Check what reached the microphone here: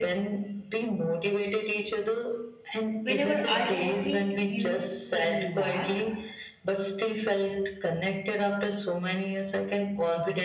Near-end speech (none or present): present